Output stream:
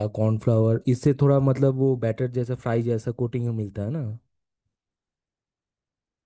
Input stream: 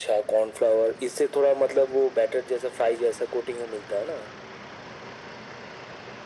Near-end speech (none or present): none